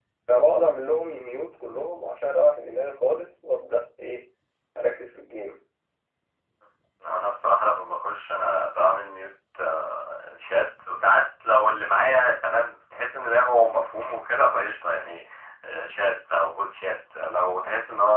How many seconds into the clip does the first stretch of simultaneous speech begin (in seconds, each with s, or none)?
none